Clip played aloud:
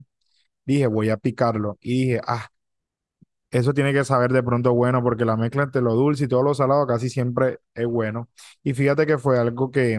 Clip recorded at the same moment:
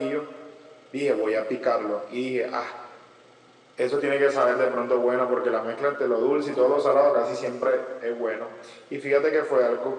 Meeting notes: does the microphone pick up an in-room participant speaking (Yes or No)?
No